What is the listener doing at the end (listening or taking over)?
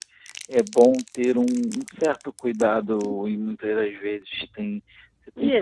taking over